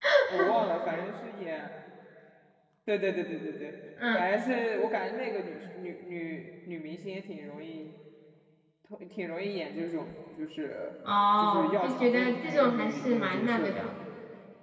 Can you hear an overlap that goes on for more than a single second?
Yes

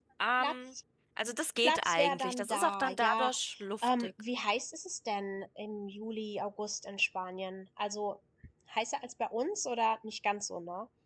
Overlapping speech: Yes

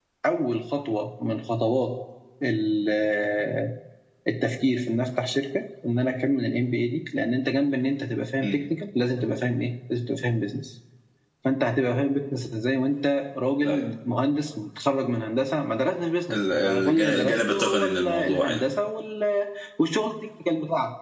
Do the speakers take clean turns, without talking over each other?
No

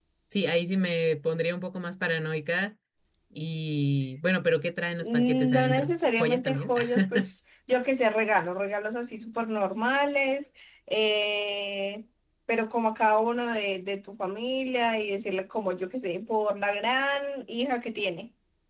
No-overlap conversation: No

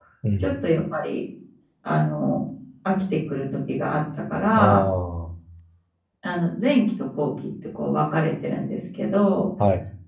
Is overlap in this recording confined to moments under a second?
Yes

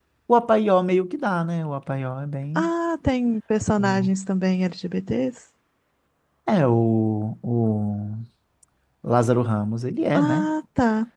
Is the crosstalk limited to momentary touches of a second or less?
Yes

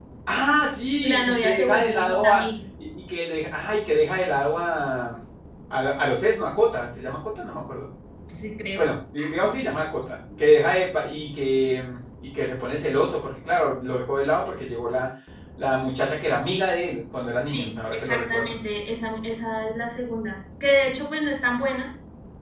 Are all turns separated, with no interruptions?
No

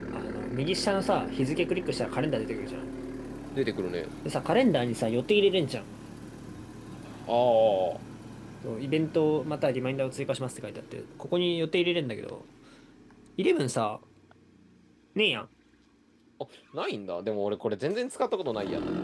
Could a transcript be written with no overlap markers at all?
Yes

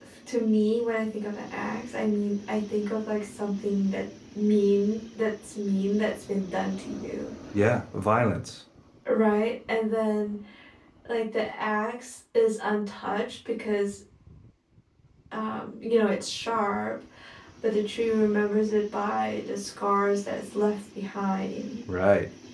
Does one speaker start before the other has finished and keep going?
No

